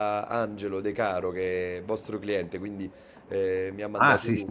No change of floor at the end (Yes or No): No